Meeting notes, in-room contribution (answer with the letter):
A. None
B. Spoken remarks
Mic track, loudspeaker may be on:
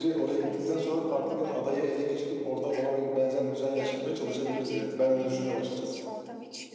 B